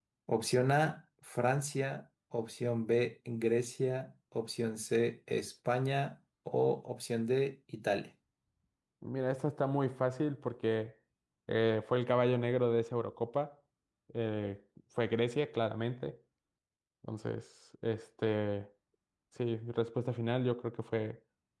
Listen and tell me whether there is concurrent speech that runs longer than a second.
No

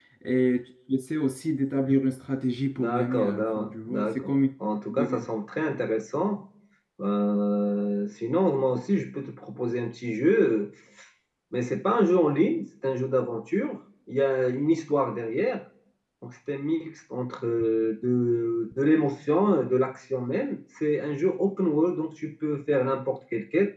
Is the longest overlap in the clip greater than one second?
Yes, from 2.8 s

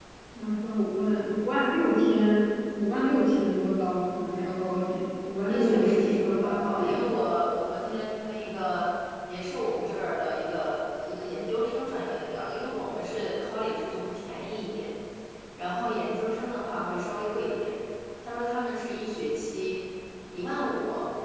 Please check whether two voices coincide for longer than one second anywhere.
Yes, from 5.5 s

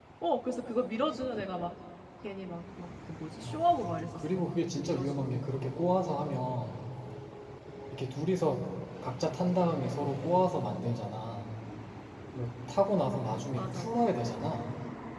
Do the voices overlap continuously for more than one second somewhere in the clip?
Yes, from 3.4 s

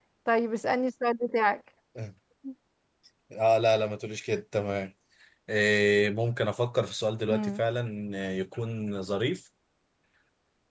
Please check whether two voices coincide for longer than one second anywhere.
No

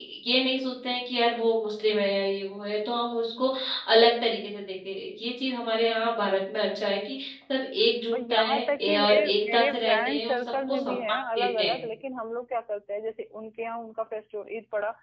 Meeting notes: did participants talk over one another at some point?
Yes, from 8.1 s

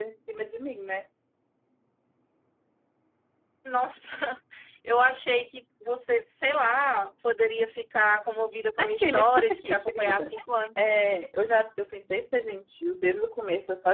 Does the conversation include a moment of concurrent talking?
Yes, from 8.8 s

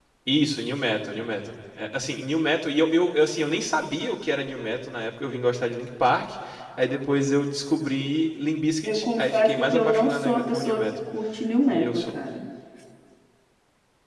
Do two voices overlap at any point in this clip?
Yes, from 8.8 s

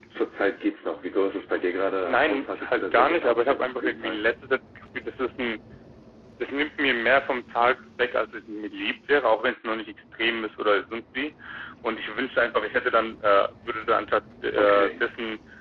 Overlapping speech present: Yes, from 2.0 s

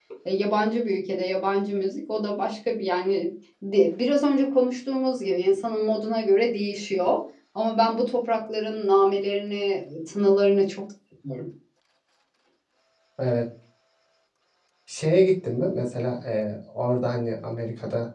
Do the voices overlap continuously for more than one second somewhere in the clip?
No

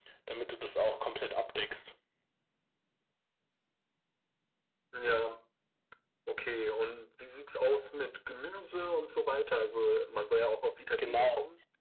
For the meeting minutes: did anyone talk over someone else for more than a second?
No

